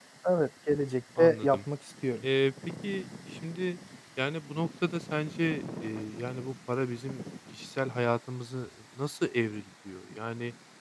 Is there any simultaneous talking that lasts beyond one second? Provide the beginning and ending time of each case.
none

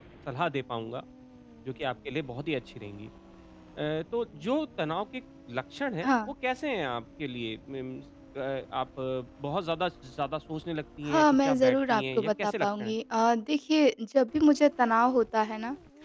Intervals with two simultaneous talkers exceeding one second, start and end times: 11.1-12.9

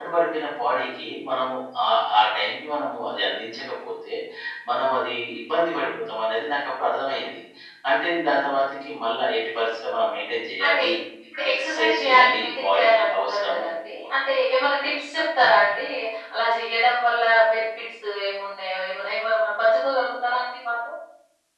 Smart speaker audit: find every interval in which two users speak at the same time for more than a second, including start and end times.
11.5-13.7

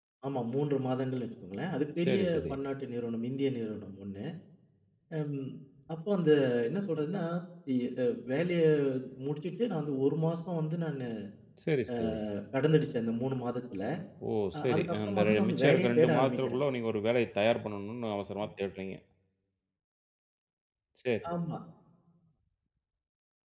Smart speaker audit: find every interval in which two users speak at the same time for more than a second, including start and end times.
14.5-16.6

